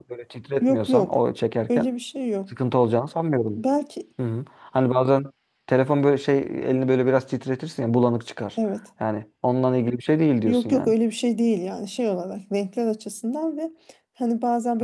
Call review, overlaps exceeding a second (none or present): none